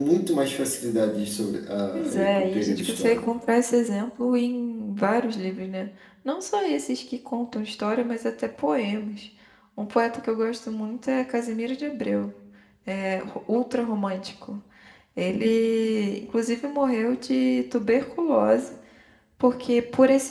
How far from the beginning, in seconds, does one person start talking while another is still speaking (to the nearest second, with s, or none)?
2 s